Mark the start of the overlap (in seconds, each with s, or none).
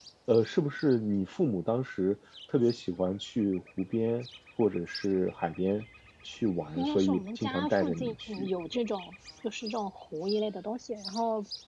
6.8 s